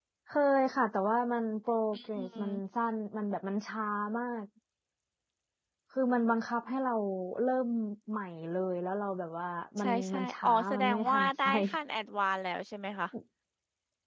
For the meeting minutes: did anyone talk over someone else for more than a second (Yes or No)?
Yes